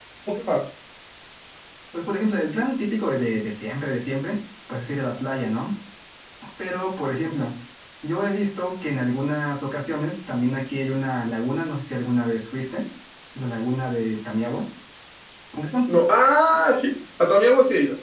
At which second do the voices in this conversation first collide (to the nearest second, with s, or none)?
none